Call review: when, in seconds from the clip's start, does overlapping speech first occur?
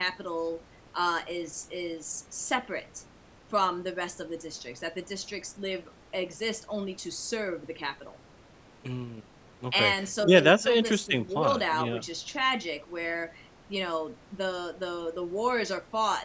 9.7 s

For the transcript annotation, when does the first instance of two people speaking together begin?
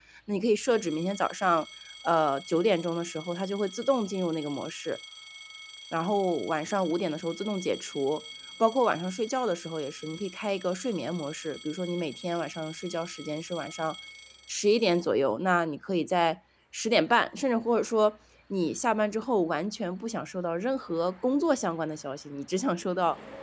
none

